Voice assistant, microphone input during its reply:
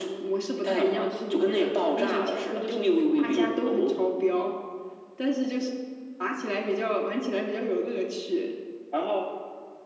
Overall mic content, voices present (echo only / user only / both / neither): echo only